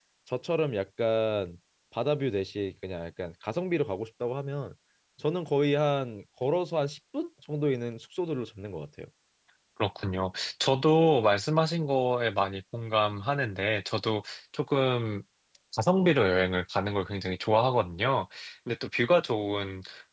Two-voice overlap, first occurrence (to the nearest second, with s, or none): none